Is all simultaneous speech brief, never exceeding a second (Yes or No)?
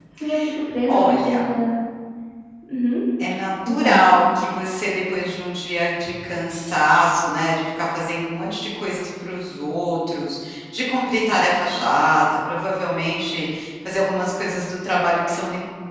Yes